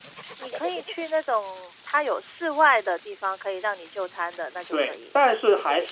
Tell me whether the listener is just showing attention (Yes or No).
No